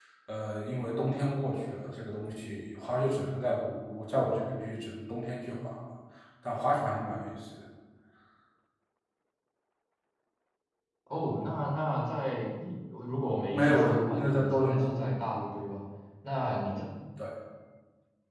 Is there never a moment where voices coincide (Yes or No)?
No